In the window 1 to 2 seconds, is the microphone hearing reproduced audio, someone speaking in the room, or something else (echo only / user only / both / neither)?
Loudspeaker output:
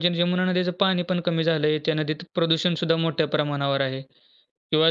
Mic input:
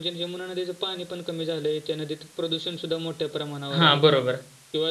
echo only